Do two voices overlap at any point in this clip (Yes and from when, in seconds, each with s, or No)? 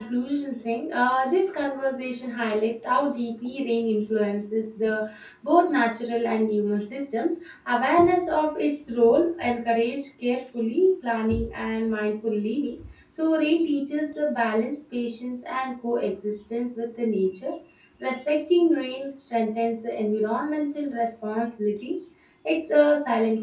No